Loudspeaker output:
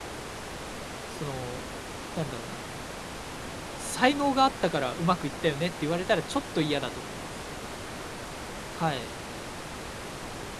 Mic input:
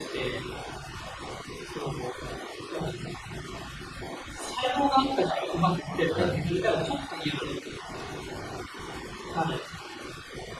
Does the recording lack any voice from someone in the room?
No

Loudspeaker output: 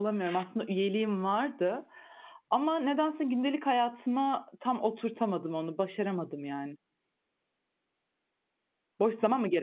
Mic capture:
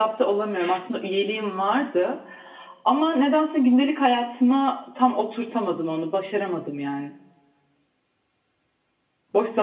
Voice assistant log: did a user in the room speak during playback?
No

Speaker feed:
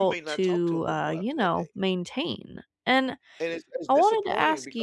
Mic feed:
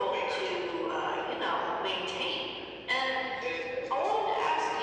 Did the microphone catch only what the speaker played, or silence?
Yes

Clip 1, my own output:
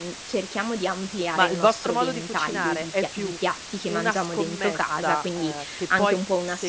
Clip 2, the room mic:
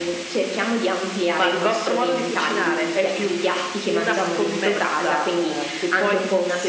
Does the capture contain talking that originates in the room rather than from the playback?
No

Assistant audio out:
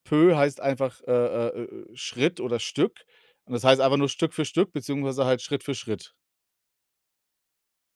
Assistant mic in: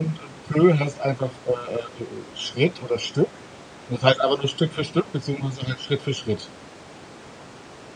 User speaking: No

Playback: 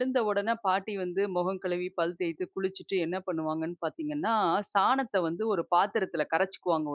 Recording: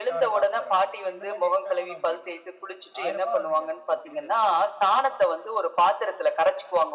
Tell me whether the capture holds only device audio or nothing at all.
No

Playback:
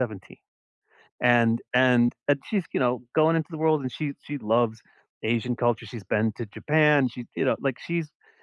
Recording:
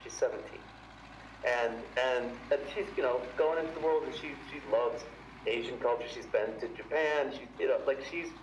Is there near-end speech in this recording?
No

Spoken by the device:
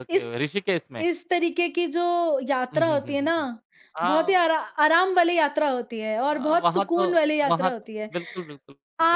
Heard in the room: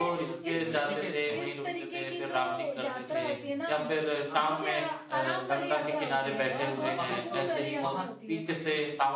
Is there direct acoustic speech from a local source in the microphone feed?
Yes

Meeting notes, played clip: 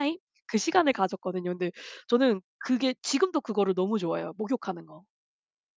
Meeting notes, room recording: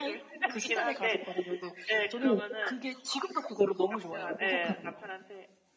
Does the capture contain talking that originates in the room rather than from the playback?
Yes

